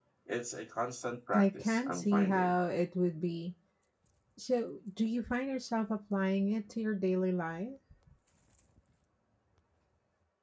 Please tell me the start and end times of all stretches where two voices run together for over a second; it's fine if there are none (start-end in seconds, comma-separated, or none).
1.3-2.5